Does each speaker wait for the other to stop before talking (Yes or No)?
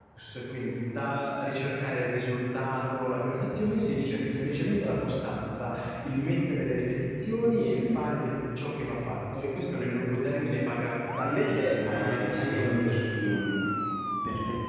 No